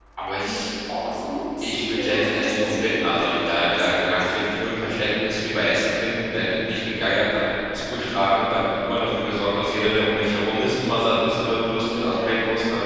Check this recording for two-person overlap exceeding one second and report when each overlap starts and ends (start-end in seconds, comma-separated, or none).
1.6-3.9